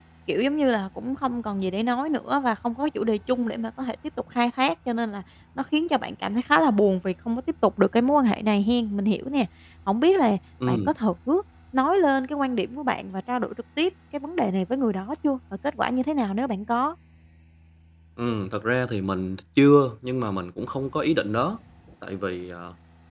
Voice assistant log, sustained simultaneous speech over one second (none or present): none